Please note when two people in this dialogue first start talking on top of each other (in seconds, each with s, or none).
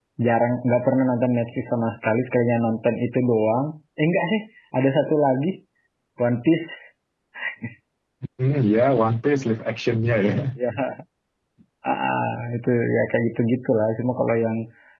none